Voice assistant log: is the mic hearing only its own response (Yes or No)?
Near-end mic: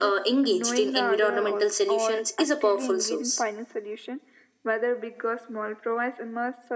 Yes